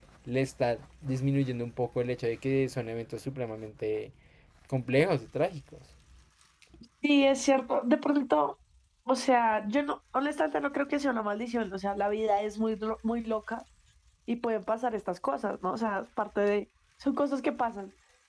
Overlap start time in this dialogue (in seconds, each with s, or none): none